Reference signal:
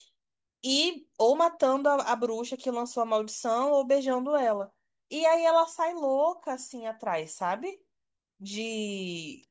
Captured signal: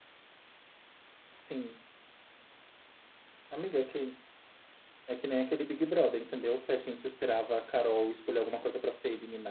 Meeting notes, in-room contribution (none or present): present